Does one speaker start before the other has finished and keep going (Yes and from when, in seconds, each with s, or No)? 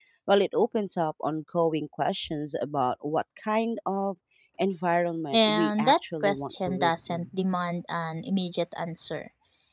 Yes, from 5.3 s